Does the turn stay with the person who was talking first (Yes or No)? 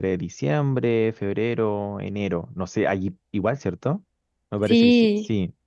No